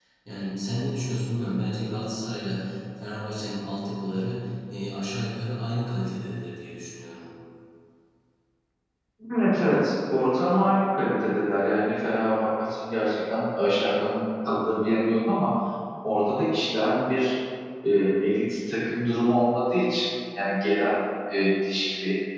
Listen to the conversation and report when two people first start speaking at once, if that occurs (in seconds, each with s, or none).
none